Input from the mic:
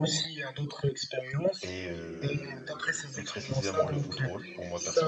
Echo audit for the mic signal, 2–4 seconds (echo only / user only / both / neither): both